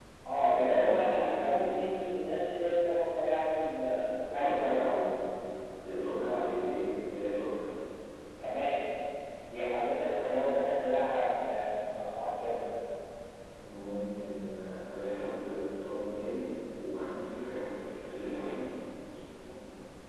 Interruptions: present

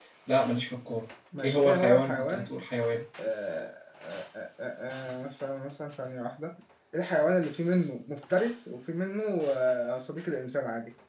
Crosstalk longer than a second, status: present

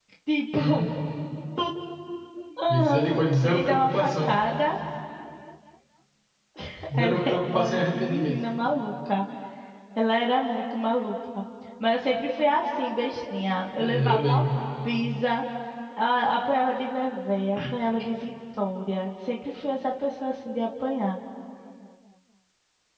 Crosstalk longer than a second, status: present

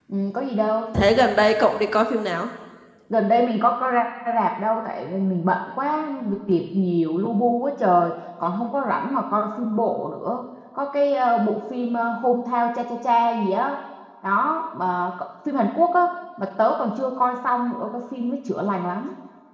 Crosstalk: none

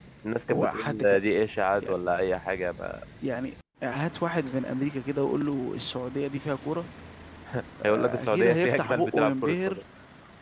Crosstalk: present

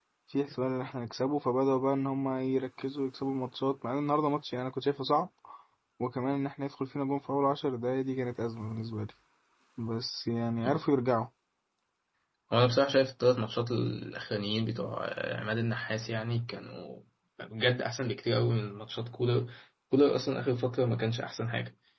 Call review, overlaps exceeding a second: none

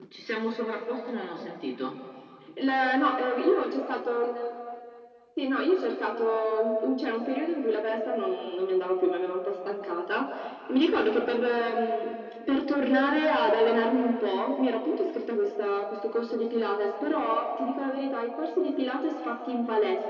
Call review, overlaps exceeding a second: none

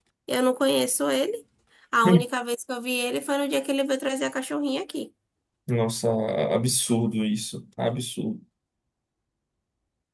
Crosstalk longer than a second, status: none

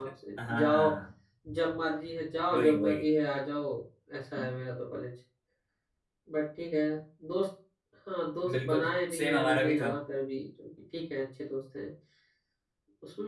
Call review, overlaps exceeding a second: present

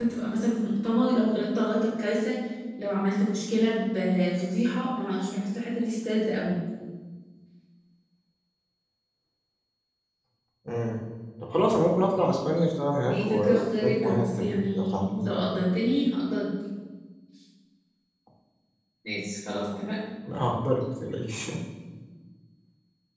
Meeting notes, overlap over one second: present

